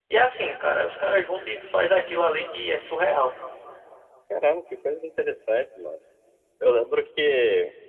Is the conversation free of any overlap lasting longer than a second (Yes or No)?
Yes